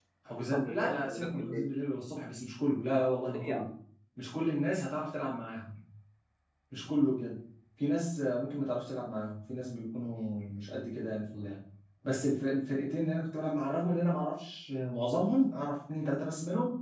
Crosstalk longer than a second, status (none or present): present